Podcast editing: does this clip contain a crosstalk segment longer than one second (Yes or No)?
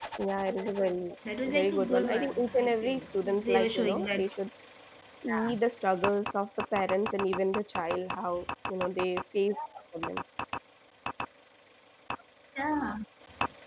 Yes